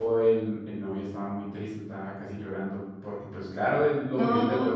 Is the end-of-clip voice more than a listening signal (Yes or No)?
No